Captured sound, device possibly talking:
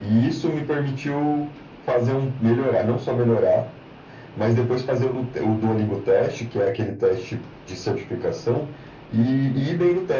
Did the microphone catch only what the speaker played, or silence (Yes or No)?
Yes